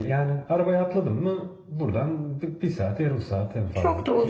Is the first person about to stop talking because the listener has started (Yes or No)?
Yes